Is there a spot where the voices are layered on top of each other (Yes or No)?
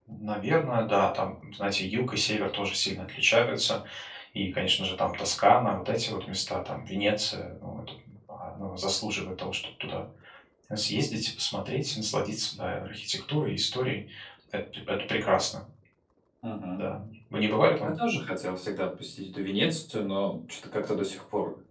No